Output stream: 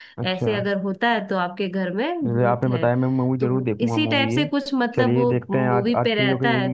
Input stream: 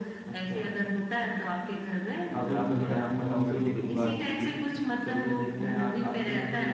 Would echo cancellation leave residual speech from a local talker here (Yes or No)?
Yes